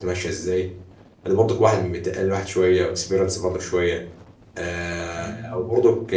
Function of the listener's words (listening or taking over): listening